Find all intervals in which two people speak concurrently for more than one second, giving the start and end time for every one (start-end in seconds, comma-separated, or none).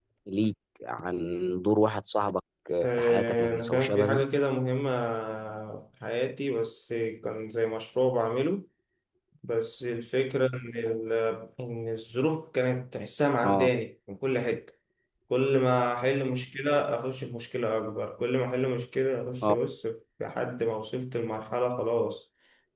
2.9-4.2